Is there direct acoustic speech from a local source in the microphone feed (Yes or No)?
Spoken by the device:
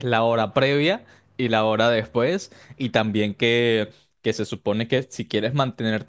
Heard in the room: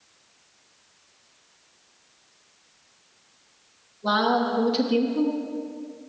Yes